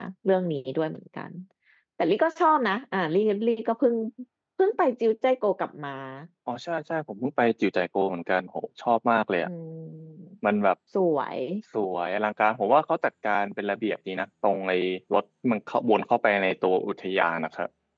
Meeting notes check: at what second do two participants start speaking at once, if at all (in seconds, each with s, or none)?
none